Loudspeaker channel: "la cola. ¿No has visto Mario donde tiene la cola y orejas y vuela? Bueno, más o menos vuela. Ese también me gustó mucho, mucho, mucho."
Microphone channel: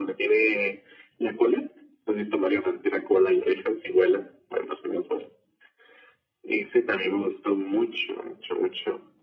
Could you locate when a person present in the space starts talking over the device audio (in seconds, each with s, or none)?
none